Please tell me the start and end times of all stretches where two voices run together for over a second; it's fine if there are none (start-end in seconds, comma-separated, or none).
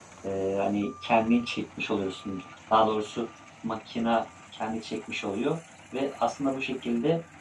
none